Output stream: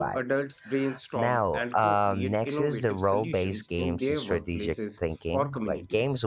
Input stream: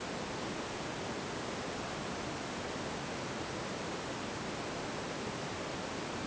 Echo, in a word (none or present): none